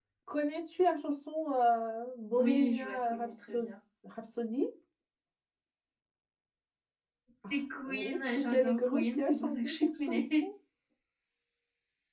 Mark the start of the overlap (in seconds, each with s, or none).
2.4 s